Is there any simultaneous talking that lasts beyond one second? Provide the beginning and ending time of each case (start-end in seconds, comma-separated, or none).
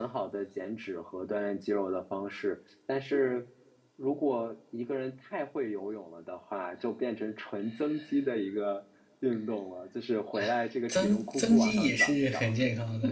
10.9-12.5